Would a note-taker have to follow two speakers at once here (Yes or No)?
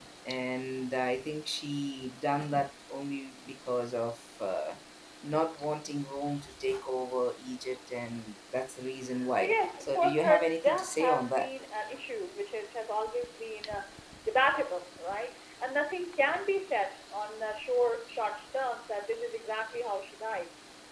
Yes